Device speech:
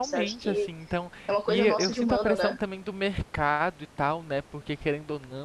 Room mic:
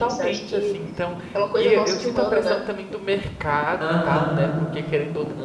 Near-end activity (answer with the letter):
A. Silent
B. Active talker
B